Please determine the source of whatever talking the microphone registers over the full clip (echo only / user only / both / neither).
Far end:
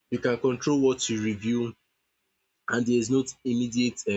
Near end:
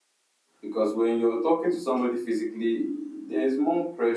user only